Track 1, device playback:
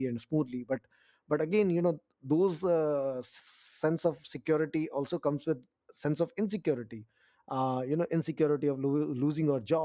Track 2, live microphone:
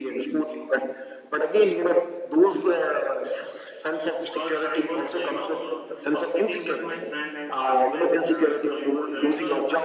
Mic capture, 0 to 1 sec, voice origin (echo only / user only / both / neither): echo only